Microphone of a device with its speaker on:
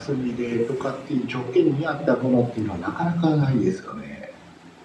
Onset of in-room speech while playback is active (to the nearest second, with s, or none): none